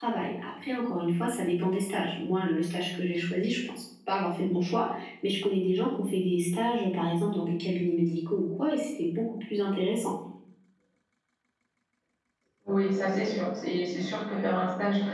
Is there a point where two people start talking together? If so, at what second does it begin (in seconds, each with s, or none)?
none